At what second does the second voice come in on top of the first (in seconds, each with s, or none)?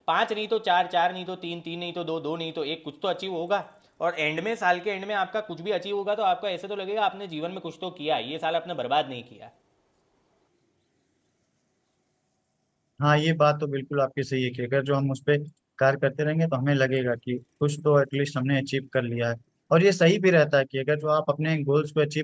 none